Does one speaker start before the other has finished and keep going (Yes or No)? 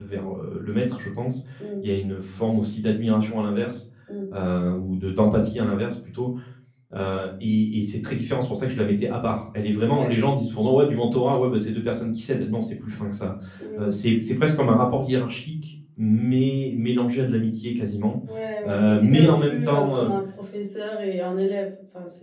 Yes